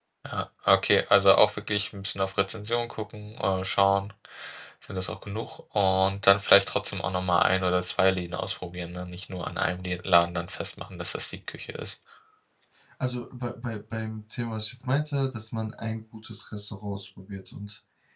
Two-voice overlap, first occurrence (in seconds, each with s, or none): none